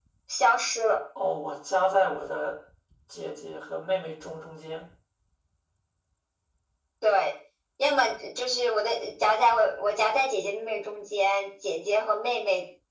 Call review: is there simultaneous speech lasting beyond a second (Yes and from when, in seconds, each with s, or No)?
No